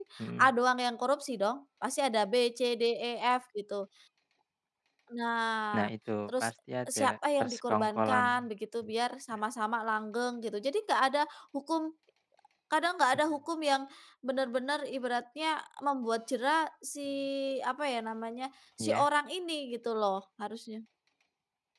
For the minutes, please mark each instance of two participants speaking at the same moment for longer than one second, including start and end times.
7.0-8.5

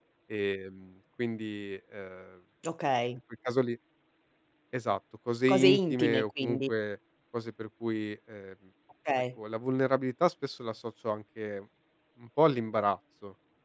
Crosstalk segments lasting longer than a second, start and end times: 5.5-6.7

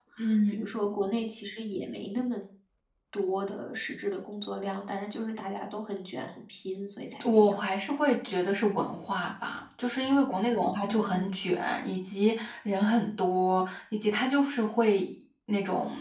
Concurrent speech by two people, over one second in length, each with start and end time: none

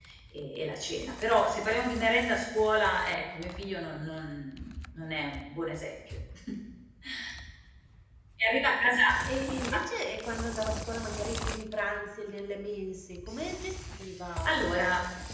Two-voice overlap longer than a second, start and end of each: none

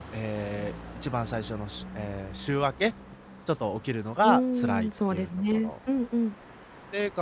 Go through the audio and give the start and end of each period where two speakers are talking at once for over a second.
4.2-5.7

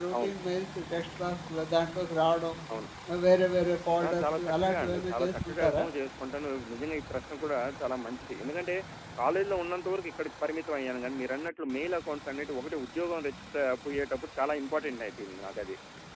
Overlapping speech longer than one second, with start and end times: 4.0-5.8

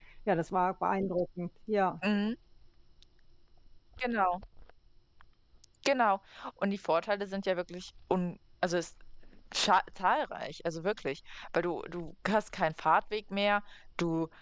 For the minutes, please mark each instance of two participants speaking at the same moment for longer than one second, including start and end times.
none

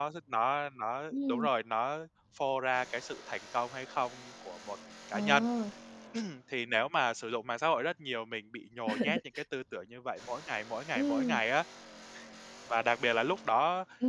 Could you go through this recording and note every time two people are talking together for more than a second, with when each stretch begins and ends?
none

